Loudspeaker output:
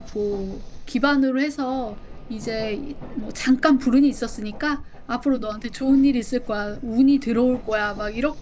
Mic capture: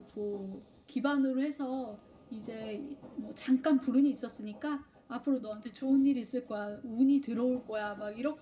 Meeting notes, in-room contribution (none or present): none